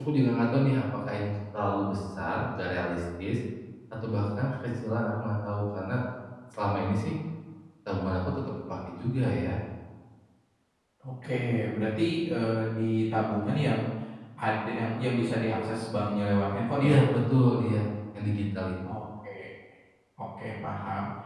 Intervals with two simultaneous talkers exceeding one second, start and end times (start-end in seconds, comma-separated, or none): none